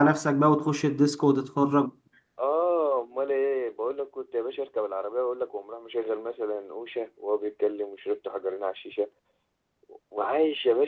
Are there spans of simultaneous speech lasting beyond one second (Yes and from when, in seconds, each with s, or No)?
No